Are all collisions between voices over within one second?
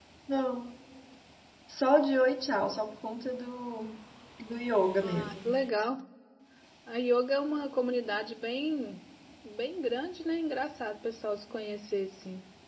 Yes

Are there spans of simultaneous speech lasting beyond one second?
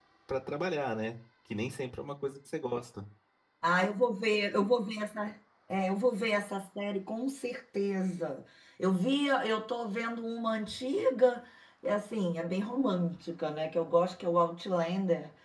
No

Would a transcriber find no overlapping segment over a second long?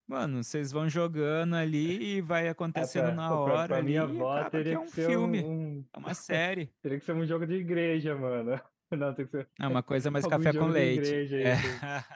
No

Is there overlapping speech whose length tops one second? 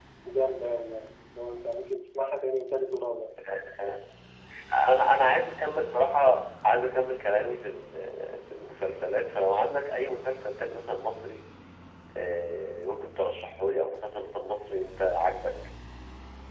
No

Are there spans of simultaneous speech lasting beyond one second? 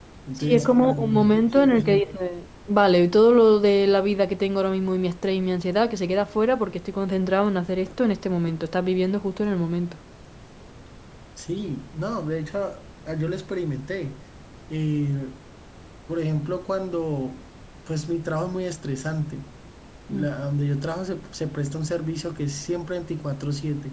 Yes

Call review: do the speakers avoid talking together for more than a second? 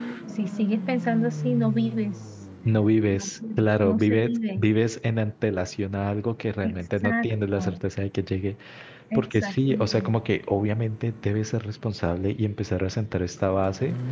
No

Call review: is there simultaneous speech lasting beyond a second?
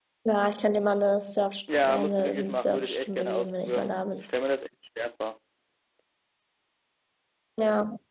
Yes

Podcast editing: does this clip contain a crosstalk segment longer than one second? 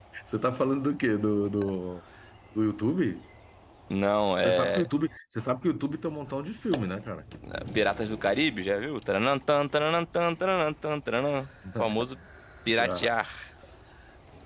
No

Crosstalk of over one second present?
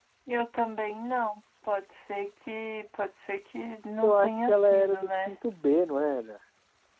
Yes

